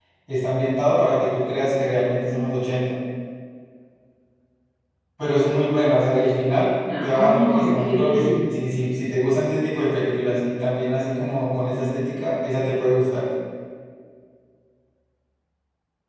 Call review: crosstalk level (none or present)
present